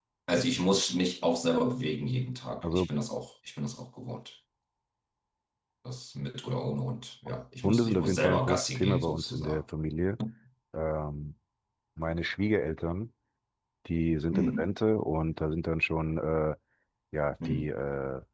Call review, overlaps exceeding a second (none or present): present